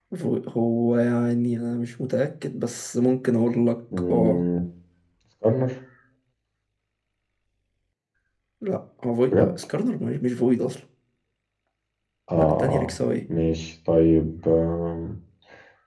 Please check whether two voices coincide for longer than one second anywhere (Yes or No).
No